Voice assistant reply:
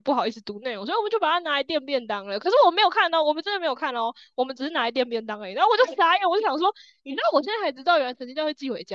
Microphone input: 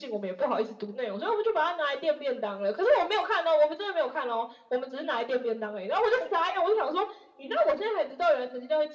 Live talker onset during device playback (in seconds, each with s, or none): none